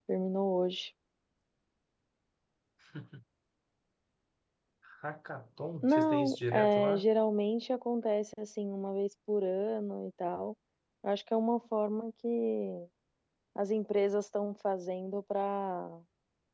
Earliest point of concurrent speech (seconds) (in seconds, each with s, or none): 5.8 s